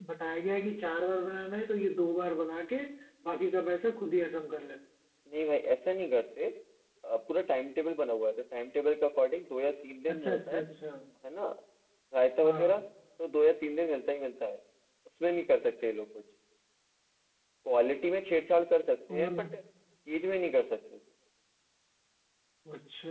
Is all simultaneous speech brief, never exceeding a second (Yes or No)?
Yes